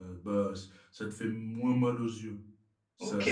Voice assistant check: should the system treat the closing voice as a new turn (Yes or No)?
Yes